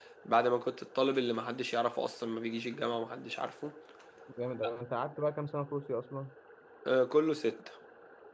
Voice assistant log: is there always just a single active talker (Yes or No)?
Yes